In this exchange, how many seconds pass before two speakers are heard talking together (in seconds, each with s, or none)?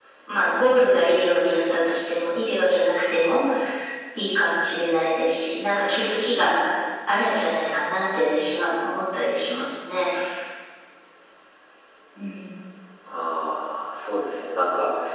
none